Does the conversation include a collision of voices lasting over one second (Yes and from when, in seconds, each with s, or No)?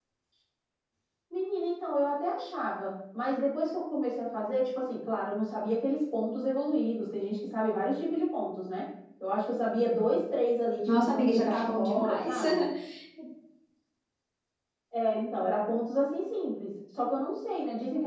Yes, from 10.9 s